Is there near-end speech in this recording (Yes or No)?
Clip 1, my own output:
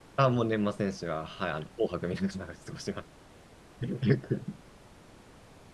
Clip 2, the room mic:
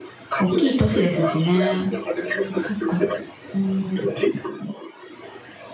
Yes